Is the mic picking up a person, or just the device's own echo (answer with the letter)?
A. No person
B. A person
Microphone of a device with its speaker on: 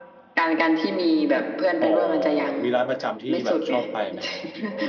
B